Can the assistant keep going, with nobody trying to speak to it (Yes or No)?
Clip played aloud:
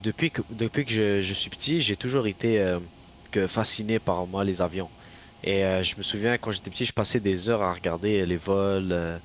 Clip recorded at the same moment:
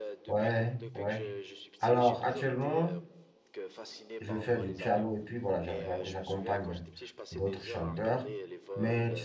No